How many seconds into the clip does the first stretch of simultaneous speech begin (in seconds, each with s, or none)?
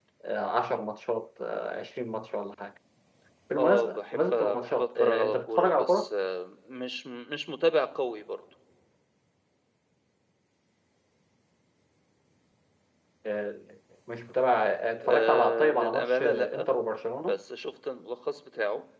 3.6 s